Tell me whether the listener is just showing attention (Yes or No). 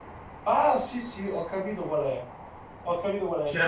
Yes